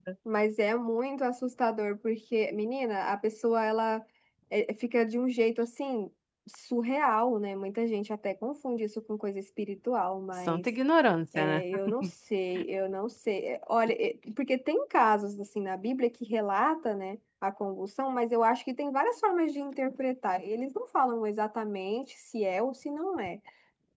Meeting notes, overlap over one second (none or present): none